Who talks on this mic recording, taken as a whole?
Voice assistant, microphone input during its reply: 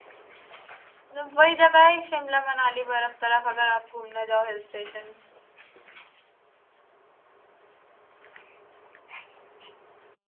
user only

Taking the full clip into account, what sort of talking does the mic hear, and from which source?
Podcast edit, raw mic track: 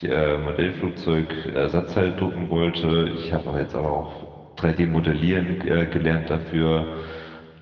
user only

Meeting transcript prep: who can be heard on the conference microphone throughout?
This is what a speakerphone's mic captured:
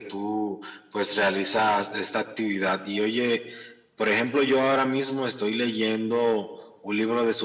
echo only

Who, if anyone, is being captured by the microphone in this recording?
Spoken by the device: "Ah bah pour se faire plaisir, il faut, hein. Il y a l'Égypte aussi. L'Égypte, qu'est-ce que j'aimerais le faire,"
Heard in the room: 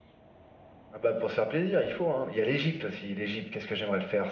echo only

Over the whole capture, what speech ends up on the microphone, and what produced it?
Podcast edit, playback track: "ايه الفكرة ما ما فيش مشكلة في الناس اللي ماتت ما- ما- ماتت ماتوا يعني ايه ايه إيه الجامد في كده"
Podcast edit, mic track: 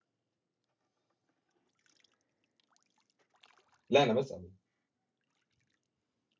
user only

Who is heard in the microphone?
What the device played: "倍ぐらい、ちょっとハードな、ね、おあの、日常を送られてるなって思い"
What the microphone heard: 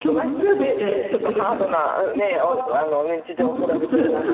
both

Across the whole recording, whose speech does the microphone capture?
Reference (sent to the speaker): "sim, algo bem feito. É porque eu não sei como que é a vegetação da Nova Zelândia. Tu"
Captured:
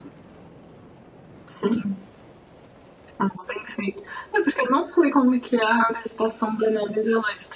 echo only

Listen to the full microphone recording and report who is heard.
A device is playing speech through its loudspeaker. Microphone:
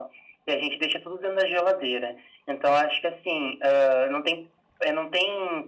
echo only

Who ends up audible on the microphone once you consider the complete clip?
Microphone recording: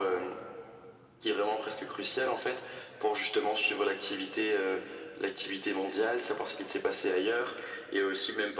echo only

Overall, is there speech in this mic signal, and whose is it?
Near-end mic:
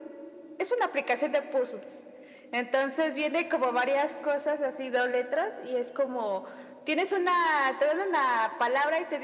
echo only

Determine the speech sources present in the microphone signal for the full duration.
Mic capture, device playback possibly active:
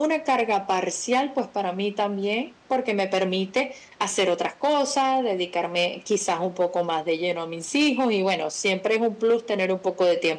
echo only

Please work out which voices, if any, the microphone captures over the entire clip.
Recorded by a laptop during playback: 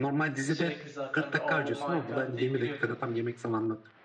both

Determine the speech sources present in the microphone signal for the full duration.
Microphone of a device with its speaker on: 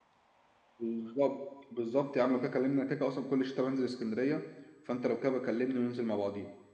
user only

